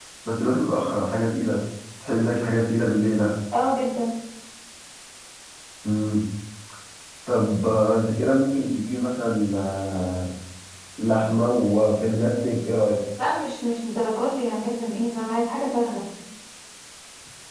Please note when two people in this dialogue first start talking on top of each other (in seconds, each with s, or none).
none